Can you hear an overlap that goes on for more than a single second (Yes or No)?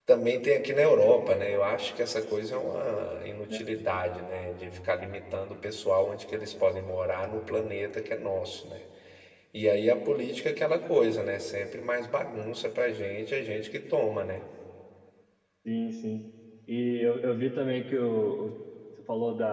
No